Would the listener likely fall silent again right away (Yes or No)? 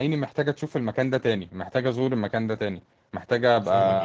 Yes